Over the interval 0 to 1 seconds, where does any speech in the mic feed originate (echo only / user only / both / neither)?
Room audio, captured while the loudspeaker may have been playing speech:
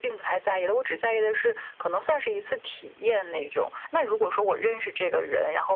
echo only